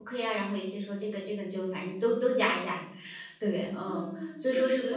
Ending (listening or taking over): taking over